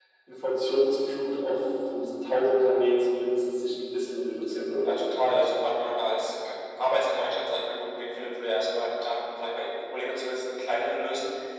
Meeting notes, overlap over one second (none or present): none